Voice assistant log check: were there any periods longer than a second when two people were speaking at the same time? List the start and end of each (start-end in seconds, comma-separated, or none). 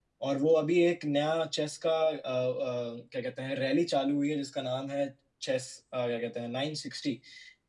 none